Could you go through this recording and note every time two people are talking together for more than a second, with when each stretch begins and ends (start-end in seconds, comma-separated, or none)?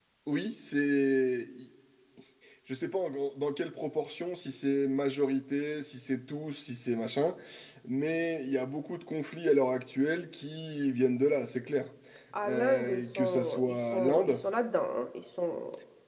12.5-14.4